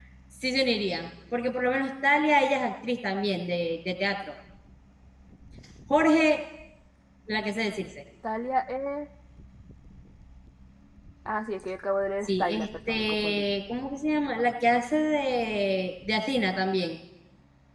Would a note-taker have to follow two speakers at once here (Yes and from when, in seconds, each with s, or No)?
Yes, from 12.2 s